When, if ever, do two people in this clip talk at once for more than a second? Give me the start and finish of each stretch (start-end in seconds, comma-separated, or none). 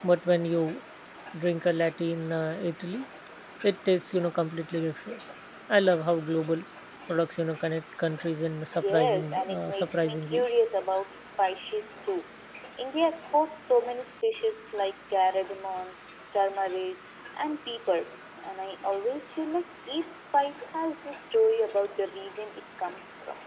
8.8-10.4